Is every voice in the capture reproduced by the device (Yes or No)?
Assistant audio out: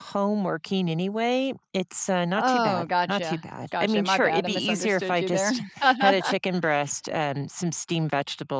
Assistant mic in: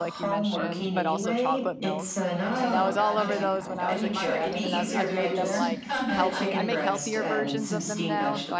No